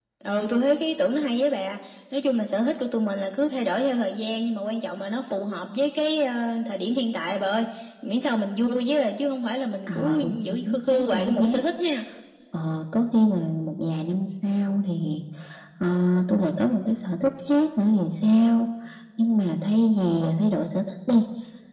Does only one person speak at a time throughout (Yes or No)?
No